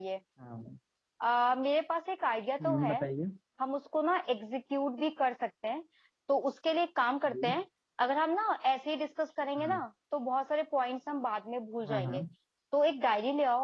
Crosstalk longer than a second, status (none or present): none